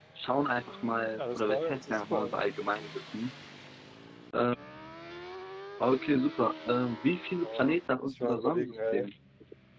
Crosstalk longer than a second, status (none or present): present